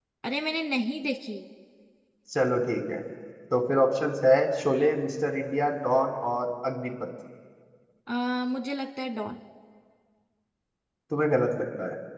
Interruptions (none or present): none